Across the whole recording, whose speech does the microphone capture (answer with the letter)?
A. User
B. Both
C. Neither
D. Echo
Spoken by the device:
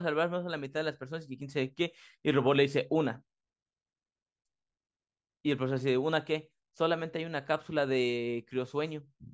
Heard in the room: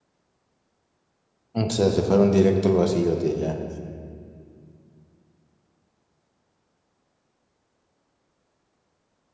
A